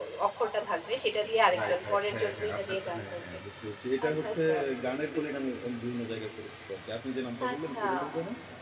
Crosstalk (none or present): present